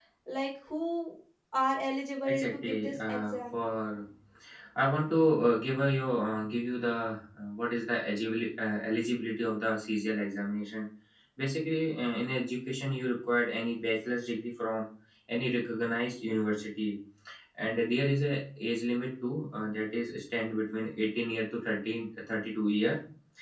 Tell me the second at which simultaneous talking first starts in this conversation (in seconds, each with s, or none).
2.3 s